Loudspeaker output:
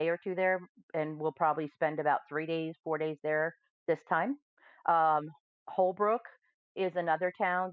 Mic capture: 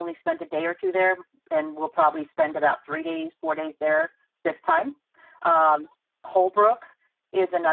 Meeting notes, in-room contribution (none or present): none